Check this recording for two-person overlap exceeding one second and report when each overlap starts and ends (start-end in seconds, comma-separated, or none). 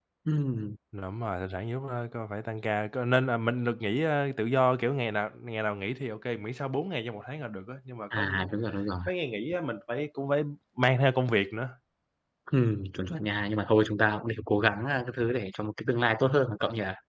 none